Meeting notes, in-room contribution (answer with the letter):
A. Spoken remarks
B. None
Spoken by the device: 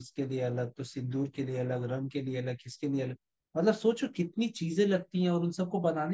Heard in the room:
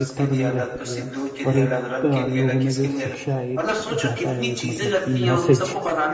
A